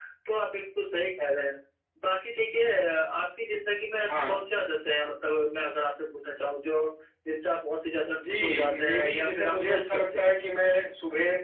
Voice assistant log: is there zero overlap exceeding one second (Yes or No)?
No